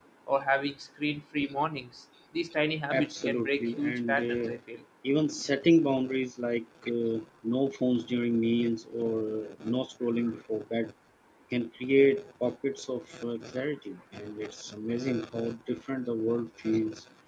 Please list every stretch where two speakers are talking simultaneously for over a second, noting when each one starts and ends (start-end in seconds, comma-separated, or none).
2.9-4.6